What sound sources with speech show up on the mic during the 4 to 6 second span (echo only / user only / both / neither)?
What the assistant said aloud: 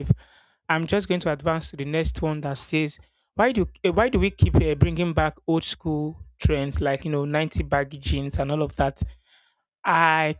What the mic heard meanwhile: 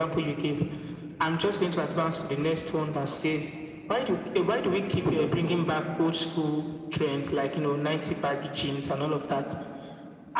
both